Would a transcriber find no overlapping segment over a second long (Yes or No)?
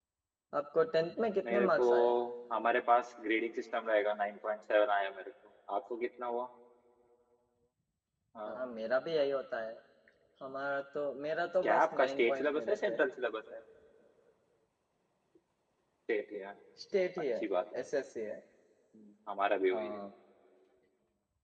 No